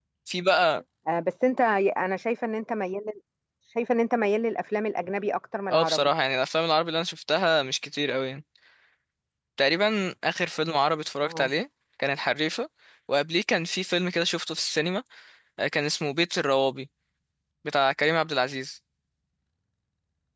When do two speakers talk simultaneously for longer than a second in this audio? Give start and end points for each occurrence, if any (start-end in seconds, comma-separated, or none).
none